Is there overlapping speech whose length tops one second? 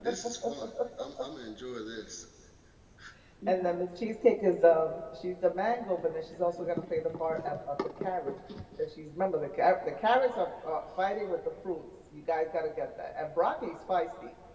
No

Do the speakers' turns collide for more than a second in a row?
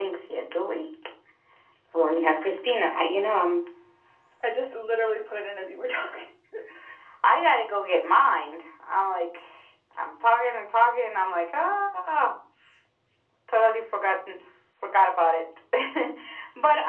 No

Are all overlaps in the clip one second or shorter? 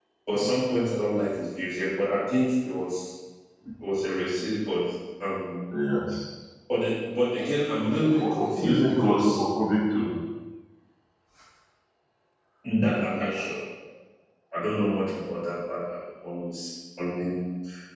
No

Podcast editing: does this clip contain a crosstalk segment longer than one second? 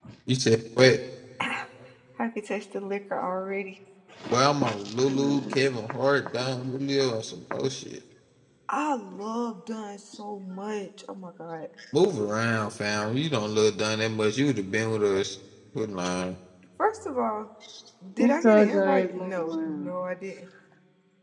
Yes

